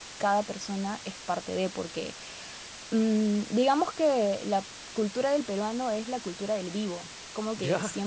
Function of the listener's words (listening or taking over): listening